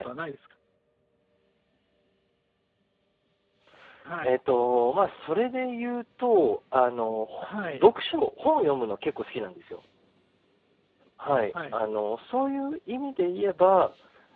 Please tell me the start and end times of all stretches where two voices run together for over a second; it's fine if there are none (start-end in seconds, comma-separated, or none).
none